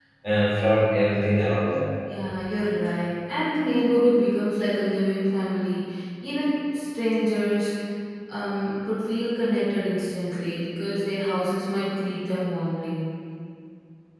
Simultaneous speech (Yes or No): No